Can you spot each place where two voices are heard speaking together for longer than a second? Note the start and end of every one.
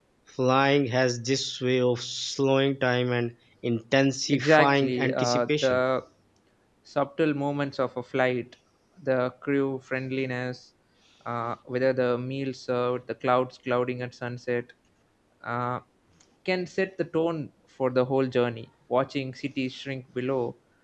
4.3-5.8

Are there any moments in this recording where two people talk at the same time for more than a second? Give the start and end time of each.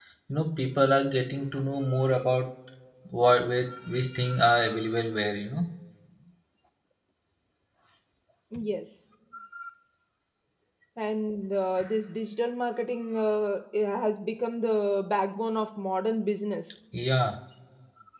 none

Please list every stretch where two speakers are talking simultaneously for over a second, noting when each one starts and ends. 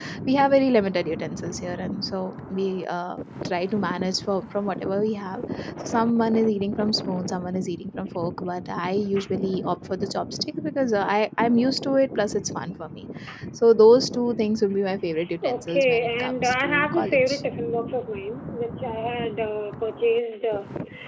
15.5-17.4

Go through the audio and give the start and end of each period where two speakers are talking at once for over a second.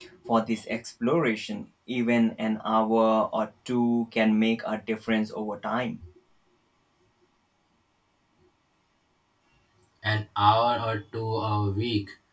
none

